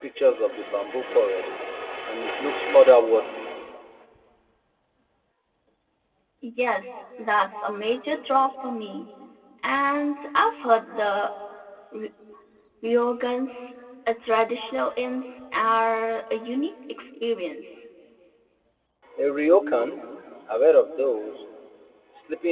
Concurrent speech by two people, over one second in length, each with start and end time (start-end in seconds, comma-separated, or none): none